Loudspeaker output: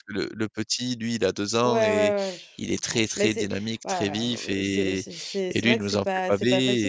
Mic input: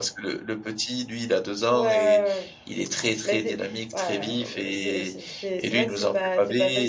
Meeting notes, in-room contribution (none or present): none